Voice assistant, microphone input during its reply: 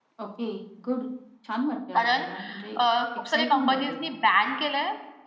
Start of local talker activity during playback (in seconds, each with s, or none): 2.0 s